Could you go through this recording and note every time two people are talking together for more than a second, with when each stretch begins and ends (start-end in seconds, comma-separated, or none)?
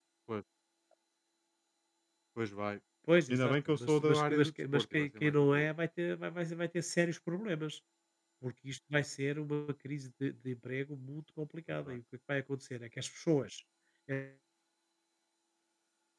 3.3-5.6